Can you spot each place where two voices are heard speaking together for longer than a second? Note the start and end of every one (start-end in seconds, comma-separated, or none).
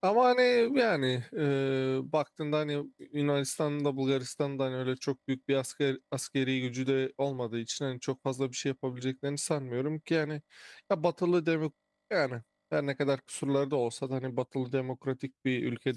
none